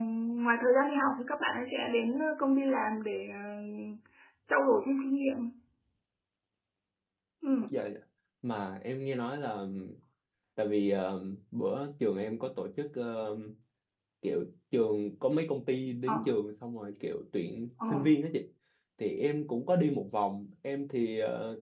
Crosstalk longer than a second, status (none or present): none